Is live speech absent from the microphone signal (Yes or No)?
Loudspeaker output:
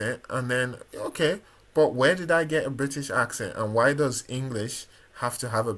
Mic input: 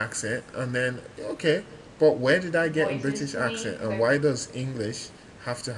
No